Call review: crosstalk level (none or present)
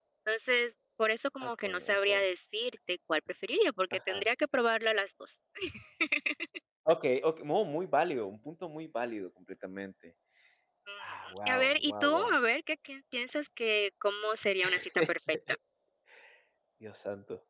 present